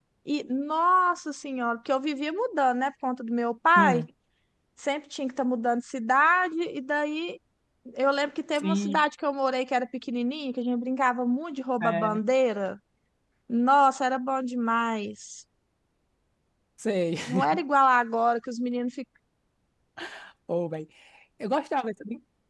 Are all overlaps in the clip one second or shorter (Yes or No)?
Yes